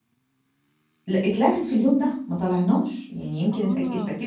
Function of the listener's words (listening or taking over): listening